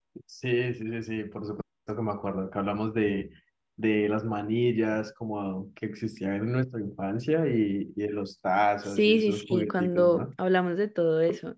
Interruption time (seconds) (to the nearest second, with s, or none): 9 s